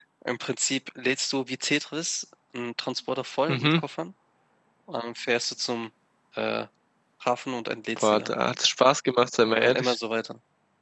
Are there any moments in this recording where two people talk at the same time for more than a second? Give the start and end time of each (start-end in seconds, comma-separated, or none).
none